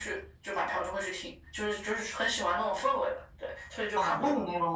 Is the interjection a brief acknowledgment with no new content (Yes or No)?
No